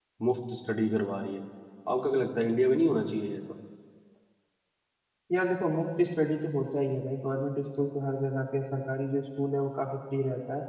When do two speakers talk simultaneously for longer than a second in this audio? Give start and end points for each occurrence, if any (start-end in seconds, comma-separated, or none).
none